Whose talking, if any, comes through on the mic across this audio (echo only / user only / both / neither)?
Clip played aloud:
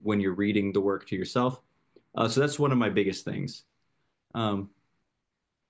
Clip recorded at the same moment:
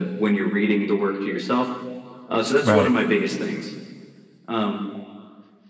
both